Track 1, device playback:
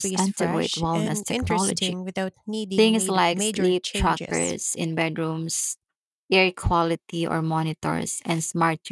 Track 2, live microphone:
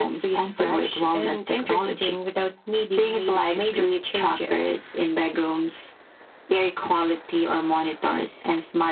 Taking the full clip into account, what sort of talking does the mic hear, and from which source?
echo only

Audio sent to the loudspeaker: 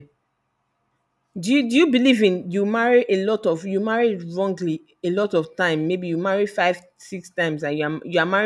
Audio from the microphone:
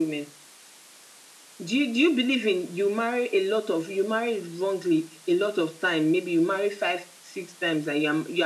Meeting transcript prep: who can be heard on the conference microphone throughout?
echo only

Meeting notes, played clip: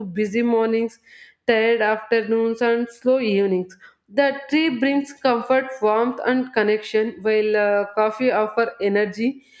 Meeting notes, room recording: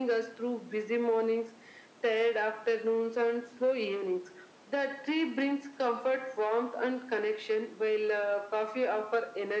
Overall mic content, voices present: echo only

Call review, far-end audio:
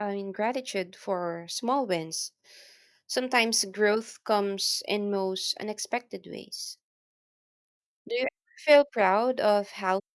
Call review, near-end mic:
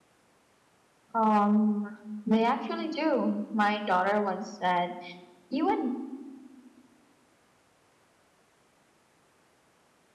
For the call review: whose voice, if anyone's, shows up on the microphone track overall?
user only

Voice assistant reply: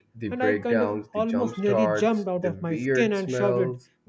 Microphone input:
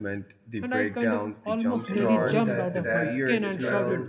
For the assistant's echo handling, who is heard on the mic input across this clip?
both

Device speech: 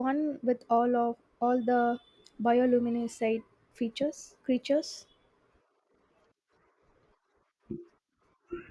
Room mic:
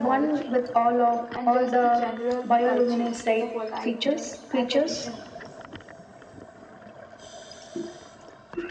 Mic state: both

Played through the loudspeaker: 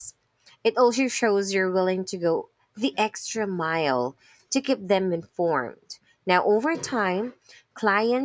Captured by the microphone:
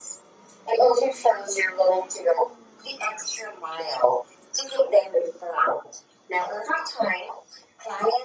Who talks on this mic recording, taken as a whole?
echo only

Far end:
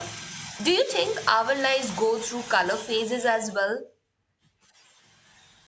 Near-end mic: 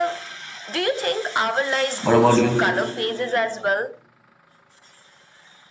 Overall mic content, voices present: both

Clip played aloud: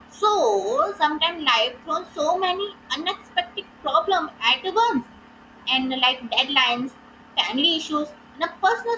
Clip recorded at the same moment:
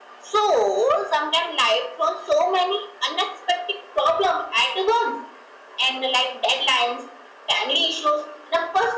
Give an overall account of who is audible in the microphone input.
echo only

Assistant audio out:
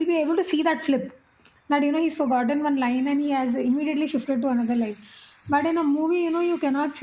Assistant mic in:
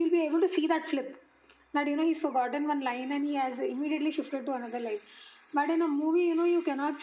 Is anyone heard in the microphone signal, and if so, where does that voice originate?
echo only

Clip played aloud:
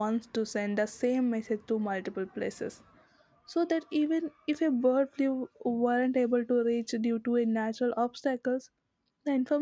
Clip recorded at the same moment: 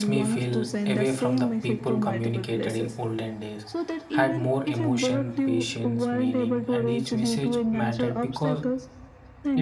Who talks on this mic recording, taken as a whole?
both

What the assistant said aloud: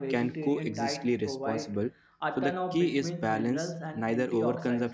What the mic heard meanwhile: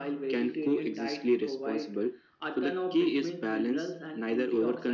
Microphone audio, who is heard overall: echo only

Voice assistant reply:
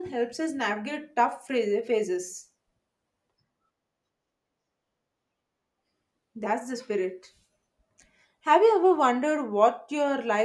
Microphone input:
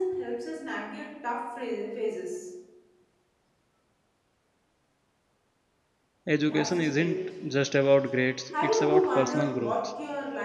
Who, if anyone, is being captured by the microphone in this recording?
both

